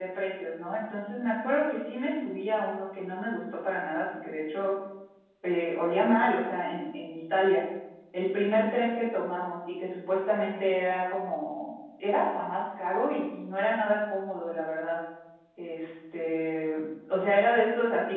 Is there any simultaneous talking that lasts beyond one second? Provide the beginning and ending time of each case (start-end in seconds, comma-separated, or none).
none